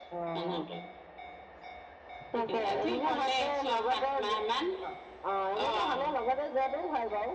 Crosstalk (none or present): present